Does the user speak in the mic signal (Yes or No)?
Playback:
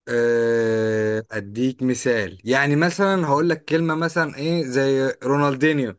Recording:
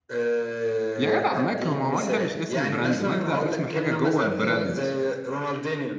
Yes